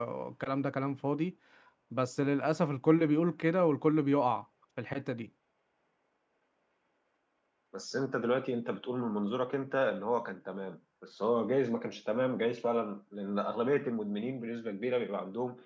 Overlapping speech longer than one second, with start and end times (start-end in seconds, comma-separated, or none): none